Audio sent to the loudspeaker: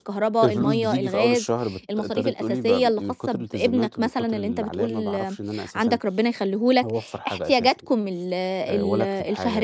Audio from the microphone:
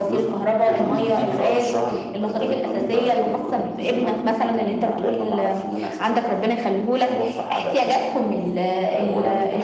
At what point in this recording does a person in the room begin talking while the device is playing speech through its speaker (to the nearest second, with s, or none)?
none